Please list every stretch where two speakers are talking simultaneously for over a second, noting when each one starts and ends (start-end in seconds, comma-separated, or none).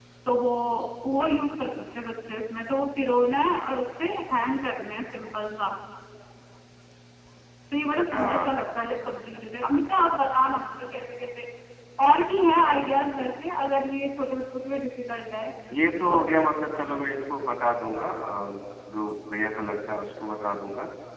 none